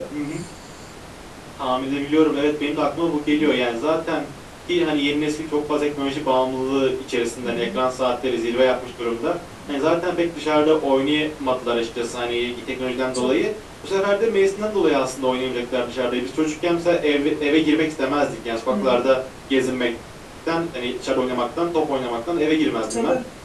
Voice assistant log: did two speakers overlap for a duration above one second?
No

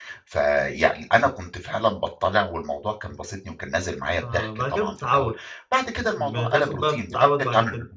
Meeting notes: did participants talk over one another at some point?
Yes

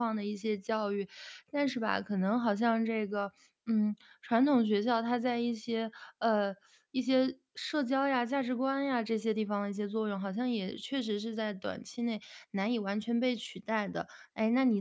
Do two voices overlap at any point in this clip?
No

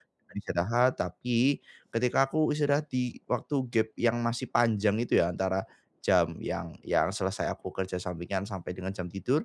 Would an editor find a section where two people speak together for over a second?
No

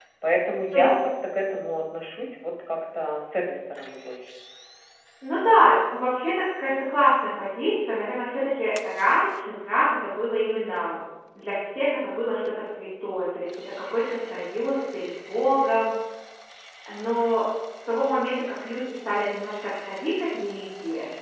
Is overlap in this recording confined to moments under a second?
Yes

